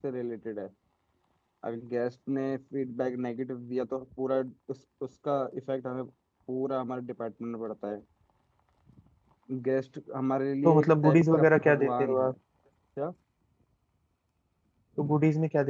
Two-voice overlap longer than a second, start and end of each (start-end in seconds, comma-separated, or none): 10.6-12.3